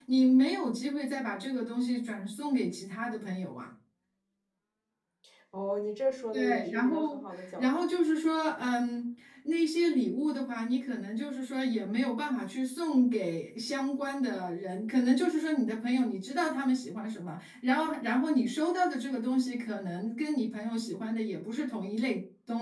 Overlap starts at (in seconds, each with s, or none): 6.3 s